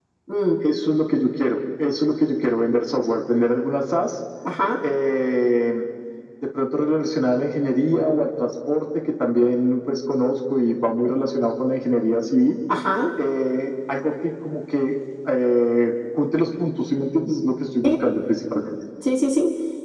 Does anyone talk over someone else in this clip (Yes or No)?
No